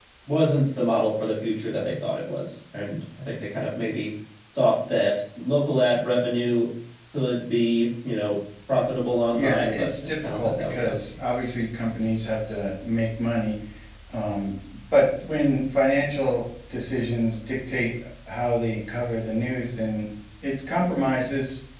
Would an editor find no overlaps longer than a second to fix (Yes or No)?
No